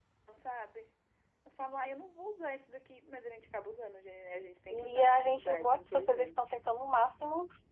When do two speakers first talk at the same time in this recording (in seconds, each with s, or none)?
4.7 s